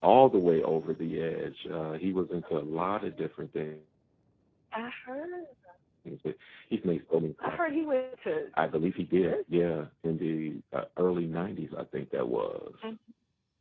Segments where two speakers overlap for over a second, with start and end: none

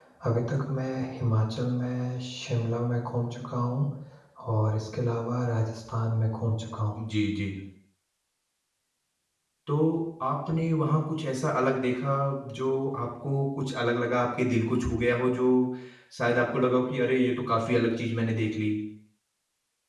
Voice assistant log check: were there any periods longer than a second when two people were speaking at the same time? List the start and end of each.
none

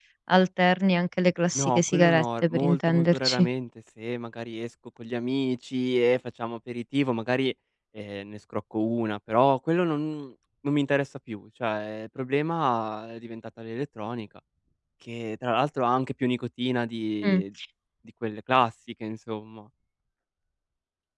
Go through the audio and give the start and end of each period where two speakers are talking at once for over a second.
1.6-3.5

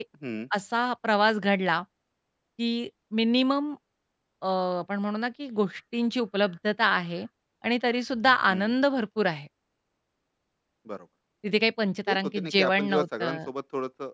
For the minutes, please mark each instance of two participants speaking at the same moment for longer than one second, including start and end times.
12.1-13.4

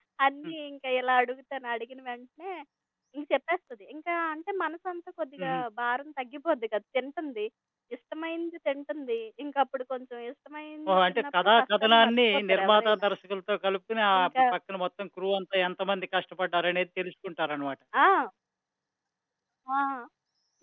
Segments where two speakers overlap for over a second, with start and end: 10.9-13.0

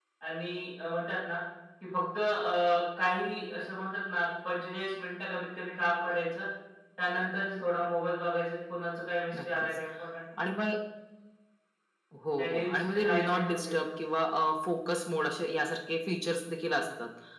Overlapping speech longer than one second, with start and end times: 12.4-13.9

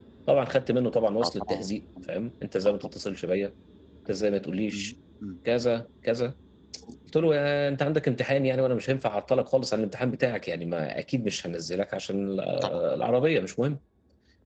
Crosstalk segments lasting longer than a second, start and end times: none

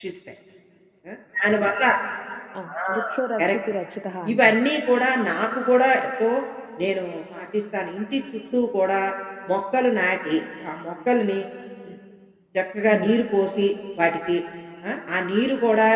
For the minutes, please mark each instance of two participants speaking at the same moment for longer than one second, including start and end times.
none

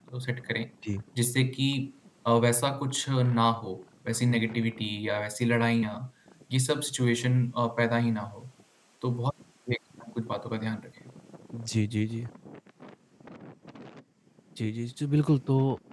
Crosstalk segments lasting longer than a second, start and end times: none

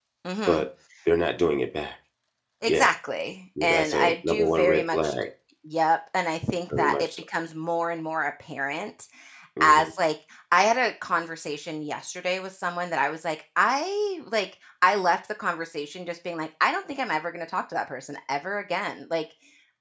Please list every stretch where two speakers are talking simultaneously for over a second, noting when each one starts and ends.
3.6-5.1

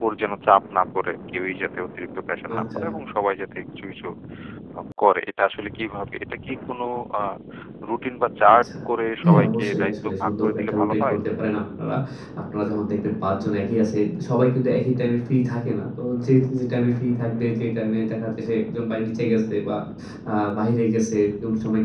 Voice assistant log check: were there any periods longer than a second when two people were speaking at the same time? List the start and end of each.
9.2-11.2

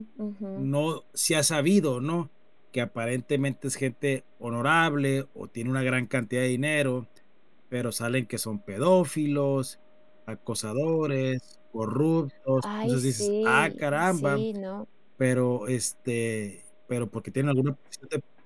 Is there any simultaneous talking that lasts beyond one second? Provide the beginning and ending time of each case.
12.6-14.4

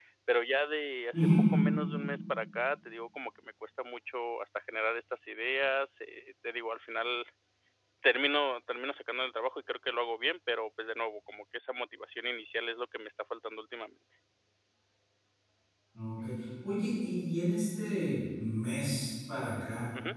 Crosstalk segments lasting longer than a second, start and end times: none

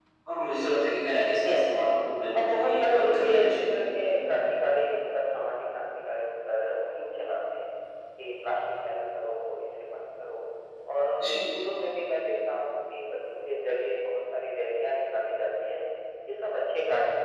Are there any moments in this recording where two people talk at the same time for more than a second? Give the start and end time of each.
2.3-3.6

